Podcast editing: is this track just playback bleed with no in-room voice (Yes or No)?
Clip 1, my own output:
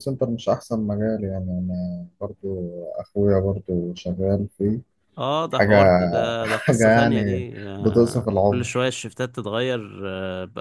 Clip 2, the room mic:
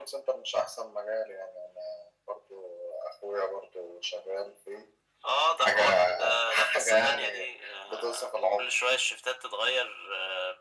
Yes